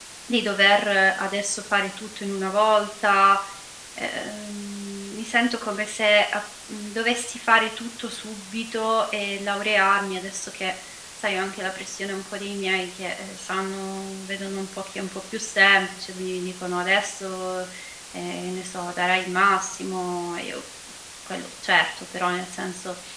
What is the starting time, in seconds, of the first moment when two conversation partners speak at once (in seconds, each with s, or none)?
none